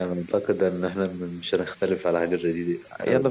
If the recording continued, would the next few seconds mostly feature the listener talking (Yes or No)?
Yes